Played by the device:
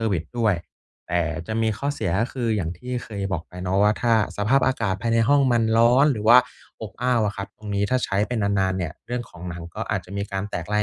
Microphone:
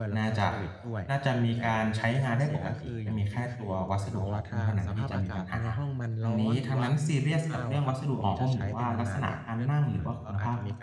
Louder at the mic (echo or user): user